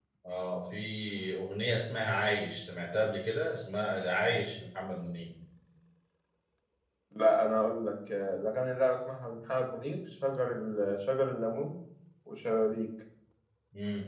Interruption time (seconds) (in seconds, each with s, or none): none